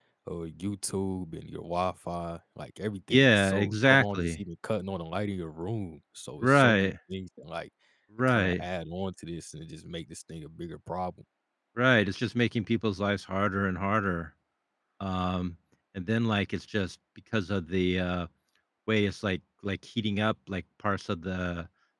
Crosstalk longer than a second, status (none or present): present